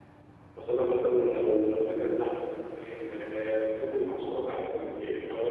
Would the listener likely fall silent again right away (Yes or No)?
Yes